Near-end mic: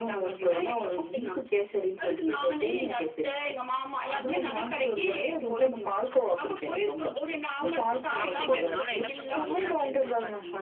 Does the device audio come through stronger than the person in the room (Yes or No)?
Yes